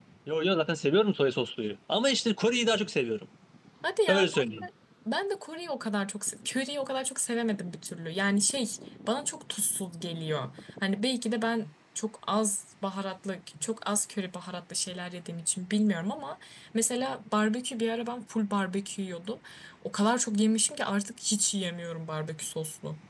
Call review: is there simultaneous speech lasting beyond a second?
No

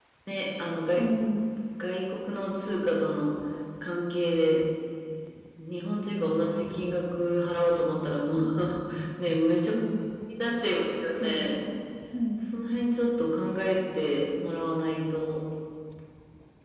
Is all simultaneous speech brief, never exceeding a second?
Yes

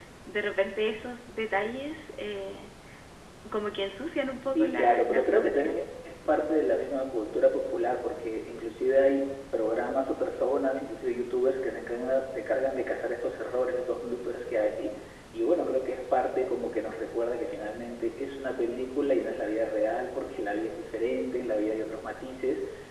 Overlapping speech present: Yes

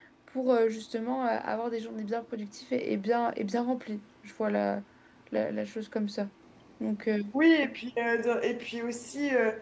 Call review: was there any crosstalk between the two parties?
No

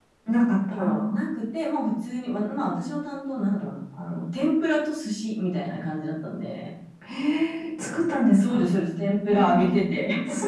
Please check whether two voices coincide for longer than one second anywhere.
No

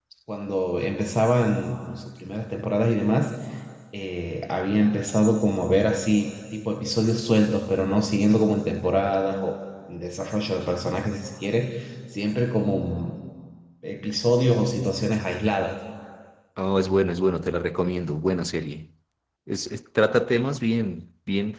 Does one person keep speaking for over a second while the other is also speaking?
No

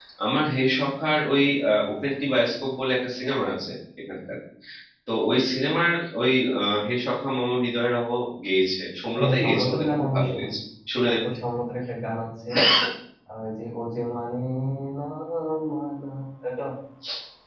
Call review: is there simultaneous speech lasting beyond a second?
Yes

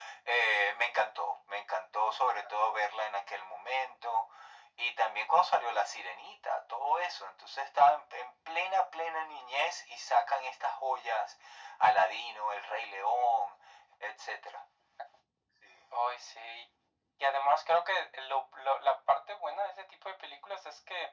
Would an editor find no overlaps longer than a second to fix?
Yes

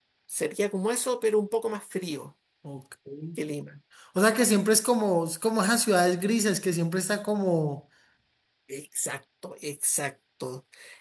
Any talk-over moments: No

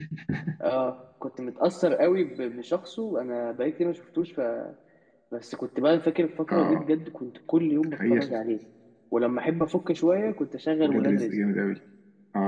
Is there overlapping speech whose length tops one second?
No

